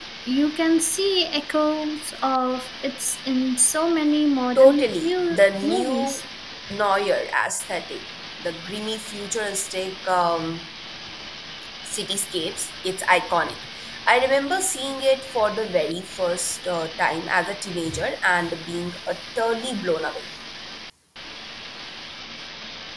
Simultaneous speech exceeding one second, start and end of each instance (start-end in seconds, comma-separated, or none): 4.5-6.2